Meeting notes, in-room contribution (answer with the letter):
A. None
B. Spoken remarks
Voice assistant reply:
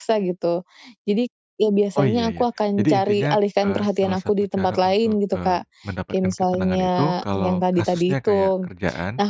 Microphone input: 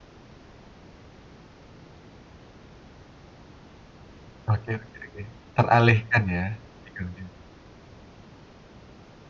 B